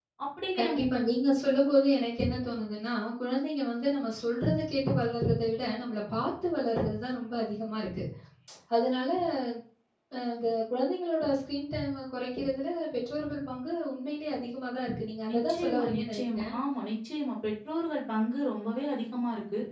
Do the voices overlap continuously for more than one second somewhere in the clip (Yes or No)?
Yes